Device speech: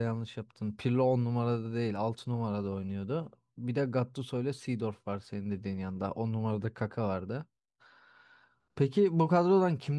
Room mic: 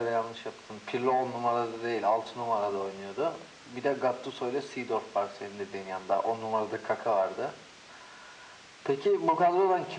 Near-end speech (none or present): none